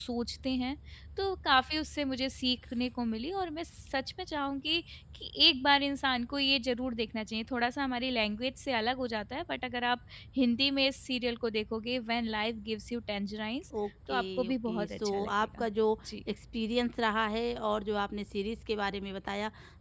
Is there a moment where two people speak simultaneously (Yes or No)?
Yes